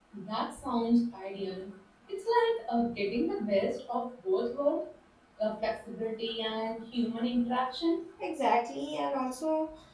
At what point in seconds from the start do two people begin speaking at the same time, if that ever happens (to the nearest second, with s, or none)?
none